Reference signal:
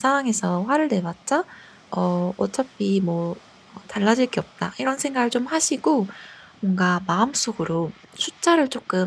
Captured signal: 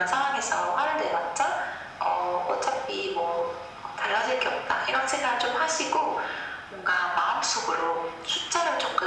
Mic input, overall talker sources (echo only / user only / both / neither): echo only